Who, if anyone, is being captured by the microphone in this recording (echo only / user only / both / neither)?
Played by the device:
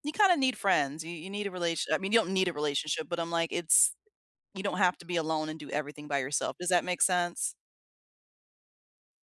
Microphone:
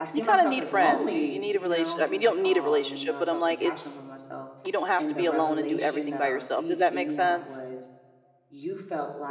both